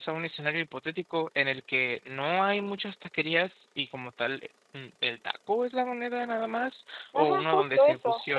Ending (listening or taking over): taking over